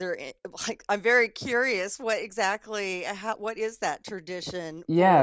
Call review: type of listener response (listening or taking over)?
taking over